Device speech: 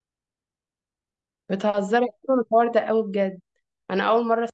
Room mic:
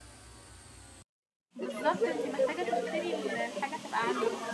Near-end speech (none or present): present